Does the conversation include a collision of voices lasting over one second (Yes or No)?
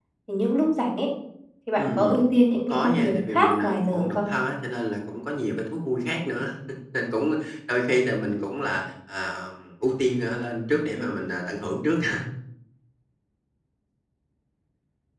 Yes